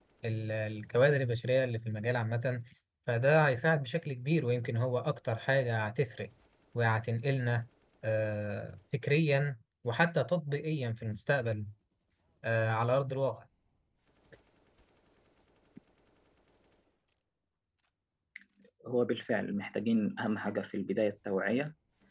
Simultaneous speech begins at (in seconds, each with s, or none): none